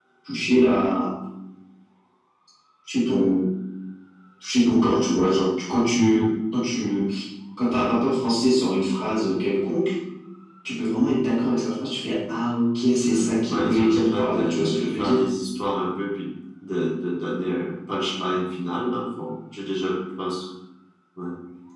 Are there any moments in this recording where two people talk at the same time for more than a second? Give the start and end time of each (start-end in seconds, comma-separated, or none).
13.0-15.2